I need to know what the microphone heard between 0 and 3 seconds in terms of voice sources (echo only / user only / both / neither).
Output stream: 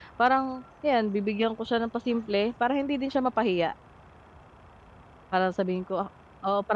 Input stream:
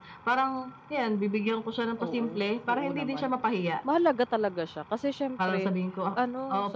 both